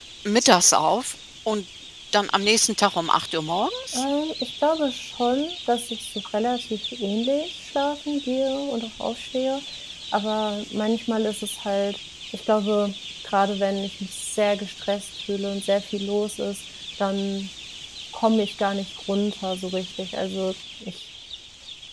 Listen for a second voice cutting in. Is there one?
No

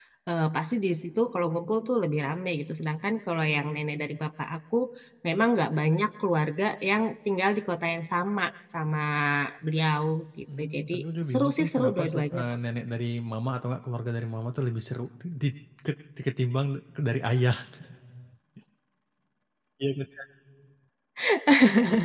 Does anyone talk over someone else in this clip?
Yes, from 10.5 s

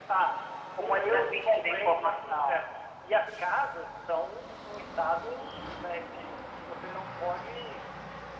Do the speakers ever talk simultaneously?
Yes, from 0.8 s

